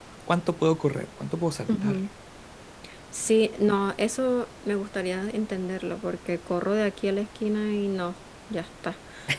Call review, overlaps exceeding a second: none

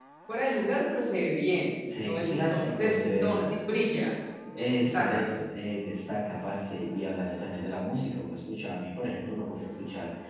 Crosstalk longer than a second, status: present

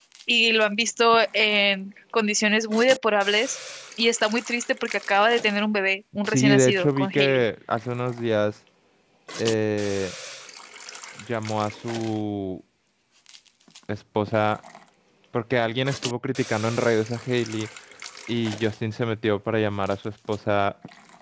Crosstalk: present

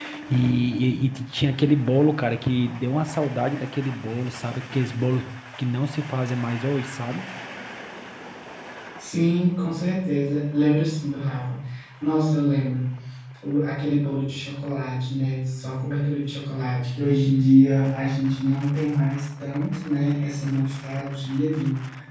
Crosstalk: none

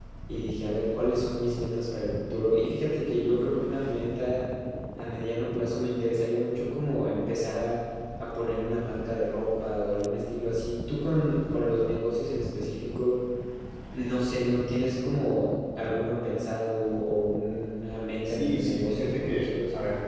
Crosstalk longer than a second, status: present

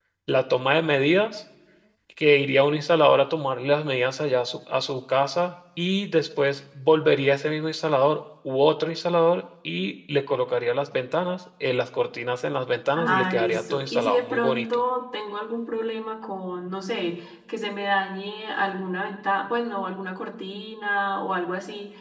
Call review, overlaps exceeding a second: present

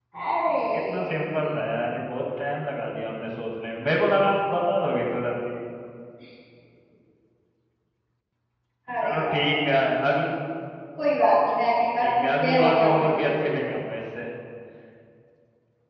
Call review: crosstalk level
present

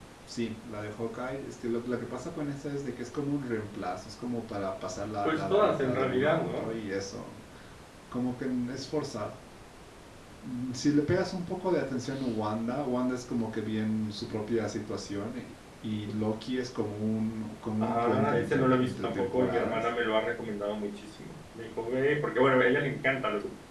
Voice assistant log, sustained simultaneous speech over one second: present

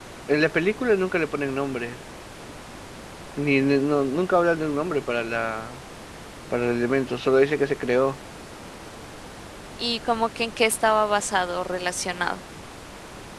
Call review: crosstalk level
none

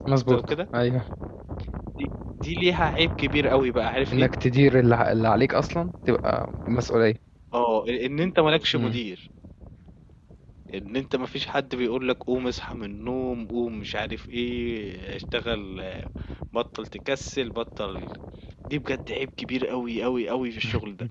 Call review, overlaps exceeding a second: none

